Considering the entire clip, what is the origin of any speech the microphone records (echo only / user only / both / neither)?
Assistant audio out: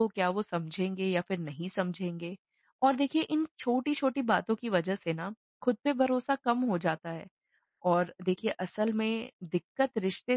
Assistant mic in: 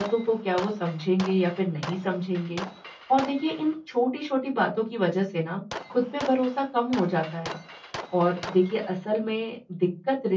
echo only